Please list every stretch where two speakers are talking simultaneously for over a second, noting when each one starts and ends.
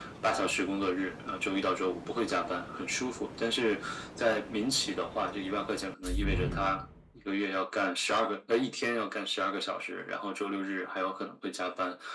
none

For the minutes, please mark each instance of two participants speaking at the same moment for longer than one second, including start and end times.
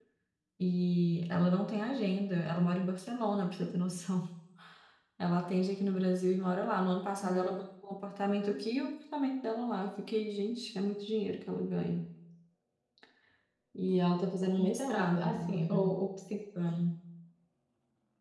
14.6-15.9

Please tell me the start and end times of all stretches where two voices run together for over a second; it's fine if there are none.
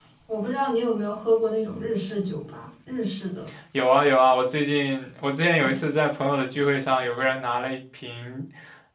none

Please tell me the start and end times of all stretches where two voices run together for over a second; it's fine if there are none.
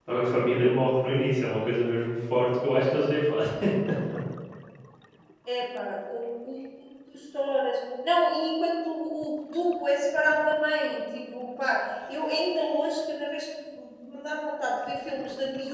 none

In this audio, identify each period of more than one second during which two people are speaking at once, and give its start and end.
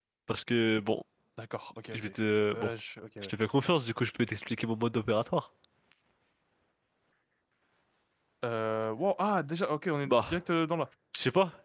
none

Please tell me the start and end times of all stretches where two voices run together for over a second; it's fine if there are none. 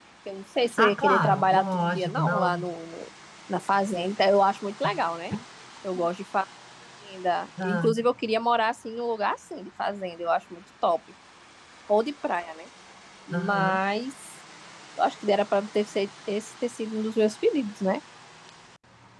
0.8-2.5

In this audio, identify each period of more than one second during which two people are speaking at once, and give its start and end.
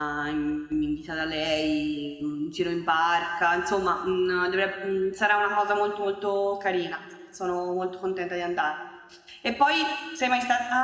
none

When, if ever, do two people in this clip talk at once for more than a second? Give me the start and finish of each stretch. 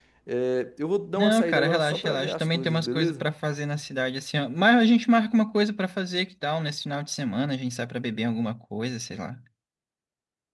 1.2-3.3

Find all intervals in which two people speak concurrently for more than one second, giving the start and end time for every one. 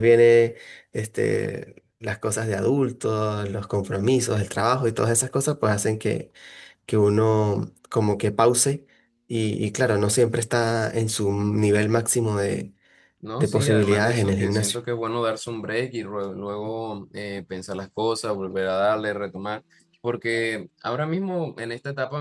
13.4-14.8

